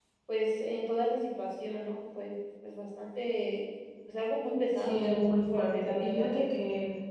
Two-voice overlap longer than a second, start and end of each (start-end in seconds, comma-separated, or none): 4.8-6.3